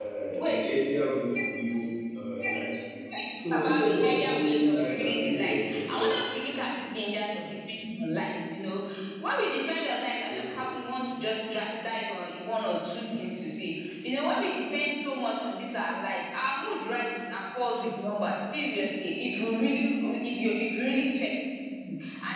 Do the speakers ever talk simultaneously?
Yes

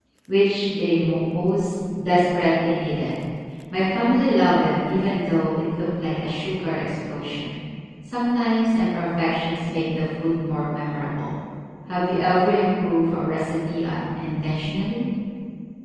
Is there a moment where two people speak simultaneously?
No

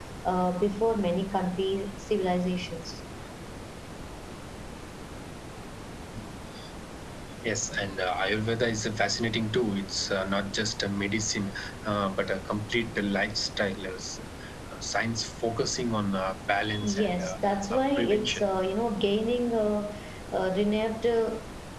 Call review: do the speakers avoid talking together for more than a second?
No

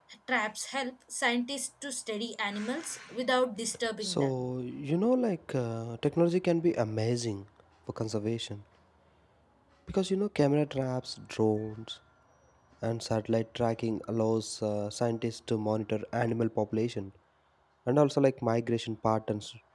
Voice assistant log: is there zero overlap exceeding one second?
Yes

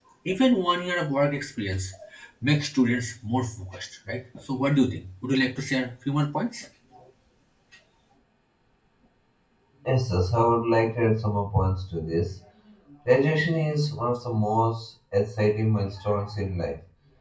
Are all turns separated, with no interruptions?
Yes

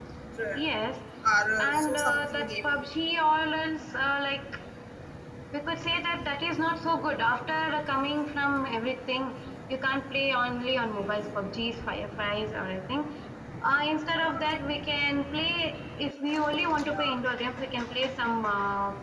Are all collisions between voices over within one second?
No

